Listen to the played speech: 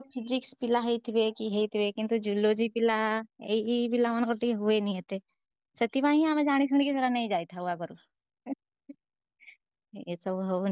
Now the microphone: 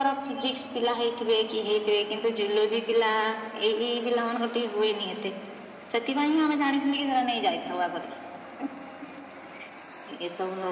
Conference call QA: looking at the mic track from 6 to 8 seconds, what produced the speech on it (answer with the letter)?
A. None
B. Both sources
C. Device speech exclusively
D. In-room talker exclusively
C